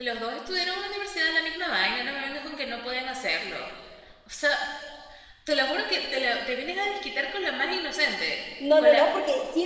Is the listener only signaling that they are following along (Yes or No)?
No